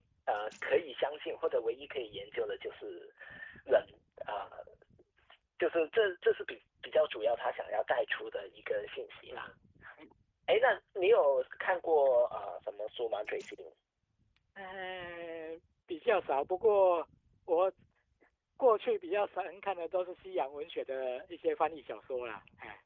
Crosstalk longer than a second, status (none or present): none